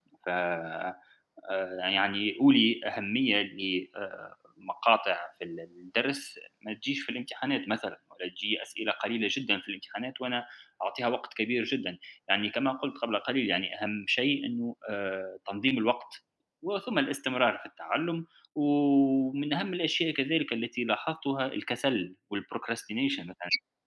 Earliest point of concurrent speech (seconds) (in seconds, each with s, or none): none